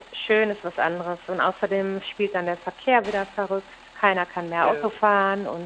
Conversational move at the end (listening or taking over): listening